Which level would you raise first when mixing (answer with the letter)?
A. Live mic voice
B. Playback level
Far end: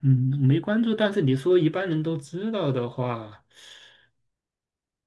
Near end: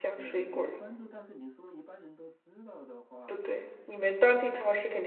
B